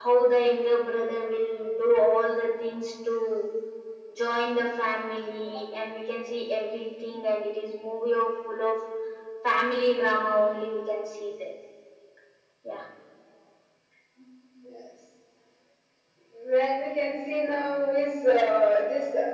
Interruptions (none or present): none